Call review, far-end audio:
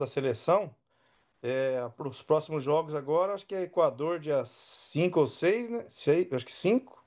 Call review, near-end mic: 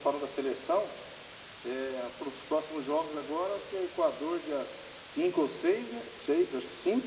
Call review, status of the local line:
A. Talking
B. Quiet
B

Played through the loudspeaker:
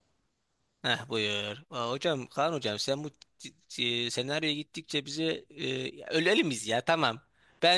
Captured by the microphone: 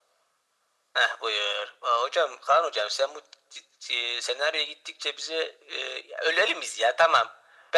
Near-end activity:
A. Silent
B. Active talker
A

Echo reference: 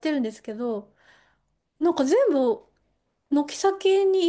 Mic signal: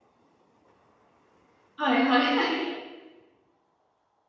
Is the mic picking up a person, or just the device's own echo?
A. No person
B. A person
B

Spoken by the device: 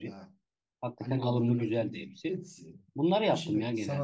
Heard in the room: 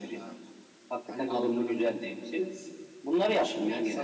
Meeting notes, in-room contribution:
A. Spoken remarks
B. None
B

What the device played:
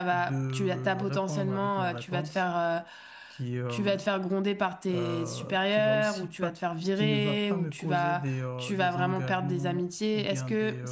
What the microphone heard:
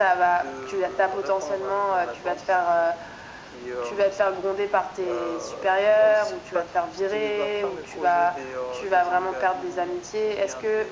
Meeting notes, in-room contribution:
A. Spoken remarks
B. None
B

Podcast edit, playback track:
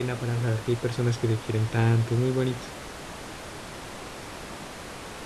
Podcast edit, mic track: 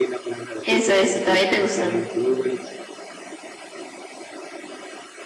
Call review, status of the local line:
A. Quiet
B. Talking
B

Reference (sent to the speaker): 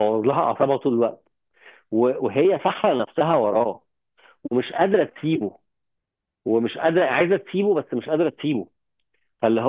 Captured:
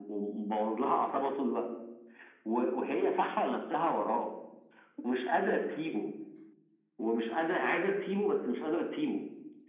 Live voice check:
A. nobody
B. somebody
A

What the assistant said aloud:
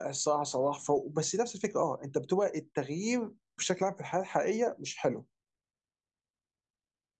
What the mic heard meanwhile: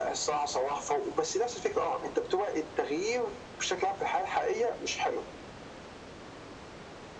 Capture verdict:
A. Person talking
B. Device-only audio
B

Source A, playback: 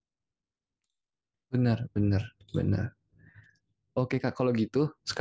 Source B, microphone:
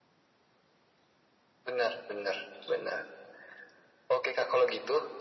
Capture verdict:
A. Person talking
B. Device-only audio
B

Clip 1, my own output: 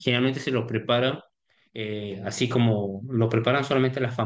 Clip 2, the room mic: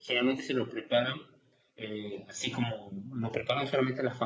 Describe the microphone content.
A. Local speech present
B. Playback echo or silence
B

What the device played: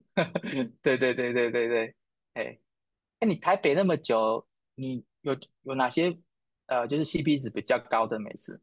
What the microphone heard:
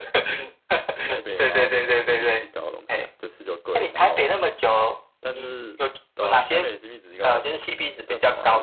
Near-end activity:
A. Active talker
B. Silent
A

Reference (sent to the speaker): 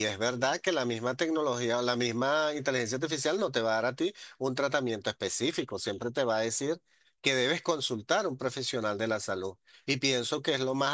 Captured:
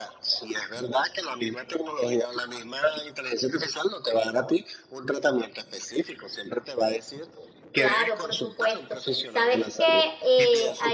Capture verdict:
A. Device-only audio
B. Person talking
B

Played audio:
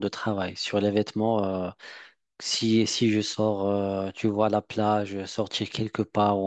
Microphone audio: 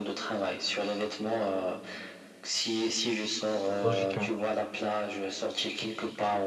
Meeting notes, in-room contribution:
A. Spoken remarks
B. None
A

